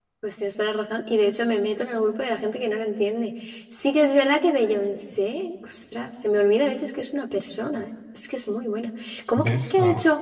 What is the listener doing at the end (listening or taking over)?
listening